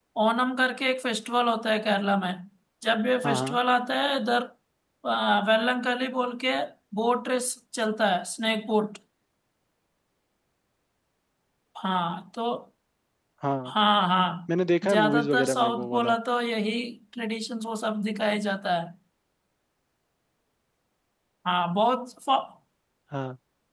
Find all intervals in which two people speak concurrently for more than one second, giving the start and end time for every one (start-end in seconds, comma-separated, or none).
14.9-16.1